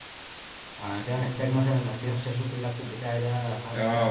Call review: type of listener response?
taking over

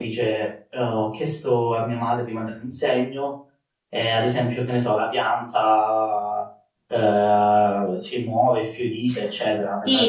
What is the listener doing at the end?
taking over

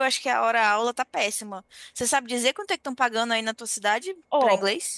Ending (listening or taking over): taking over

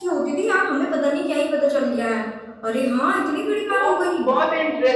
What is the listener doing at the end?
taking over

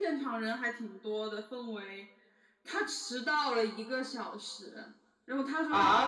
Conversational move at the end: taking over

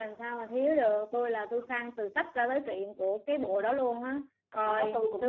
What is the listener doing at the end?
taking over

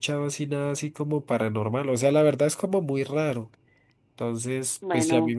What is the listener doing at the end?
listening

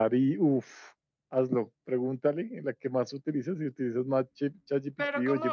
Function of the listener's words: taking over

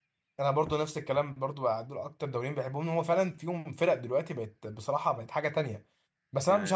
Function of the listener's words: listening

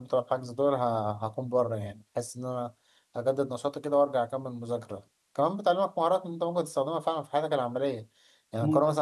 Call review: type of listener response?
listening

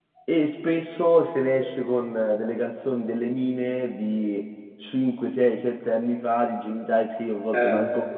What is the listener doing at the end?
listening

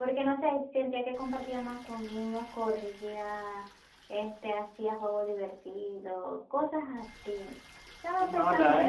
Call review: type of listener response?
taking over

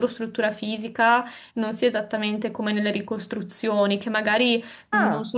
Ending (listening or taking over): listening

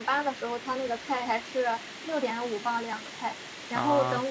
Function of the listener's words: listening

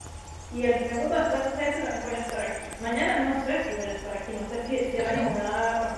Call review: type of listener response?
listening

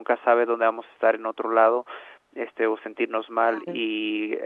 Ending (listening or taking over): listening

